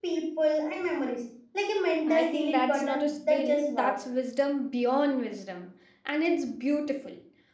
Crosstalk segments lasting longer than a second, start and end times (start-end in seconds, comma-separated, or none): 2.1-4.0